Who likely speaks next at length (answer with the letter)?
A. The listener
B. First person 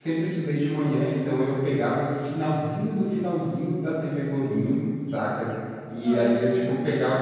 B